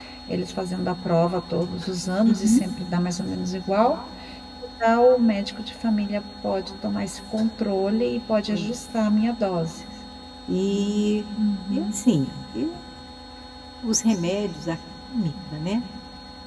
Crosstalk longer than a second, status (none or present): none